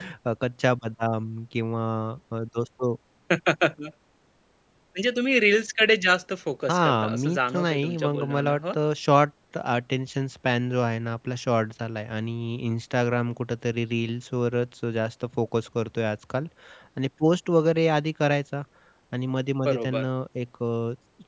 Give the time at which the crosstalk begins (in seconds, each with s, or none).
6.7 s